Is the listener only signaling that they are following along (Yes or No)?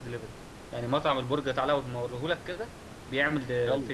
No